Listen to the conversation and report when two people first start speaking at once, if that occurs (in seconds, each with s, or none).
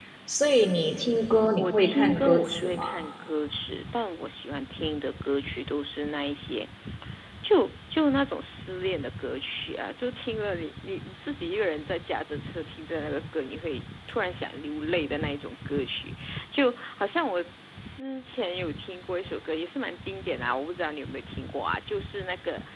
1.5 s